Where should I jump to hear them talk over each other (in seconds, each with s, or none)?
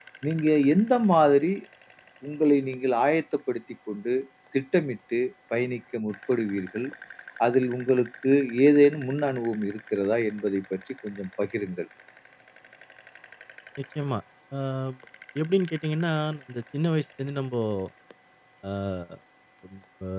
none